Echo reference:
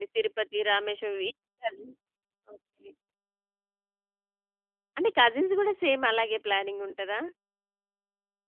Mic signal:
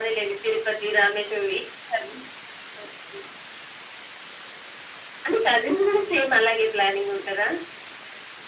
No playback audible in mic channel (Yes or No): No